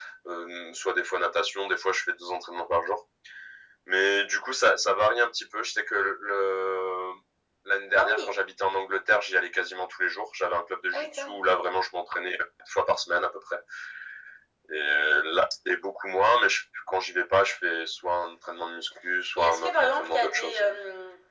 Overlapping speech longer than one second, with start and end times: 19.4-20.6

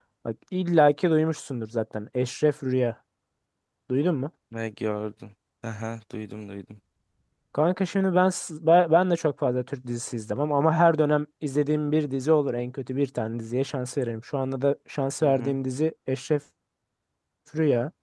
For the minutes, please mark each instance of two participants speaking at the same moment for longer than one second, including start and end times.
none

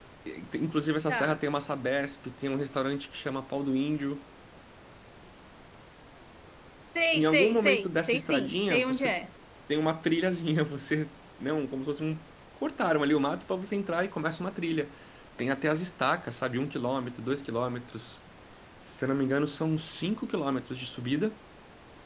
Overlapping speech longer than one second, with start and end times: 7.1-9.1

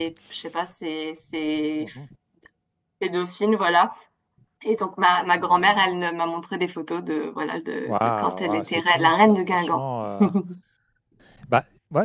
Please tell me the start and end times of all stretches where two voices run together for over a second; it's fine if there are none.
7.8-9.8

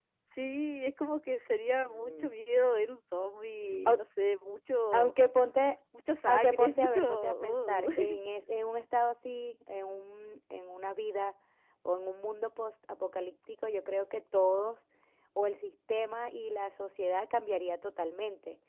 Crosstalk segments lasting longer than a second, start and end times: 6.2-7.9

